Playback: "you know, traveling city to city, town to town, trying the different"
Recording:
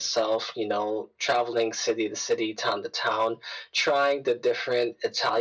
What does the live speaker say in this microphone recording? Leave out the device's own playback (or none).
none